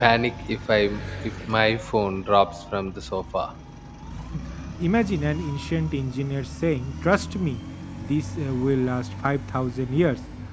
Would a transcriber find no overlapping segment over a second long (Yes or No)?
Yes